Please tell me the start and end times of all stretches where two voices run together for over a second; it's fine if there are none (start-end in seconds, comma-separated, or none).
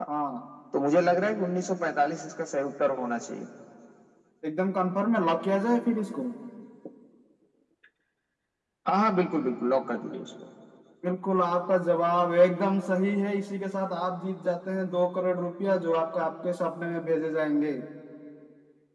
none